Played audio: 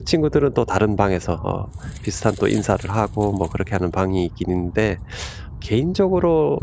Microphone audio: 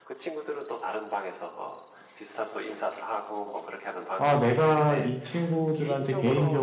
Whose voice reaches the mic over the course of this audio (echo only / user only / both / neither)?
both